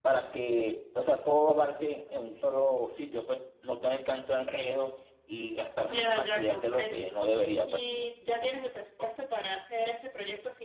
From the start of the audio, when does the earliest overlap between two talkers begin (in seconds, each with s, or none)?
5.9 s